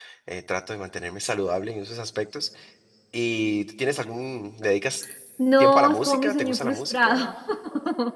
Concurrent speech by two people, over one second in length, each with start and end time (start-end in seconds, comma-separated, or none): 5.6-7.2